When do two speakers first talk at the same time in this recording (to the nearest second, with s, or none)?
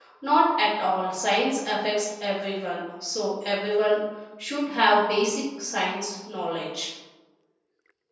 none